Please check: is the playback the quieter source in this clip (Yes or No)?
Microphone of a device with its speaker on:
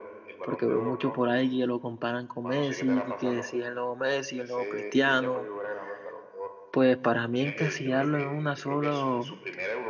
Yes